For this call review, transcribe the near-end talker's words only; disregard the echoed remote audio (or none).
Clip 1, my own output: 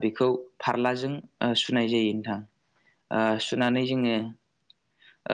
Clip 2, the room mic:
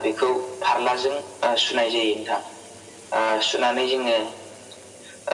none